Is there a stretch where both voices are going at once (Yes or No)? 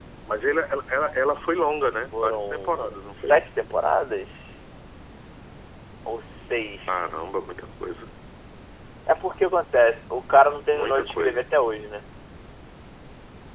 Yes